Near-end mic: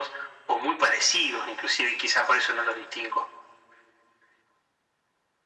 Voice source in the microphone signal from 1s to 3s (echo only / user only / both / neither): echo only